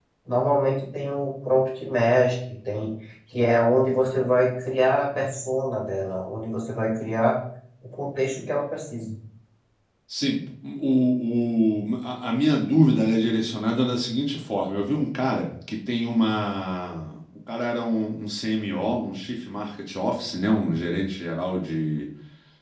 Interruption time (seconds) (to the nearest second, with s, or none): none